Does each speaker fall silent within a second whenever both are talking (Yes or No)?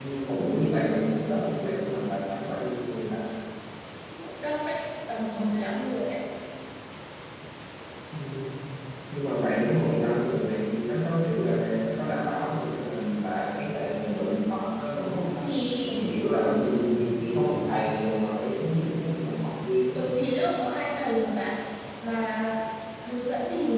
Yes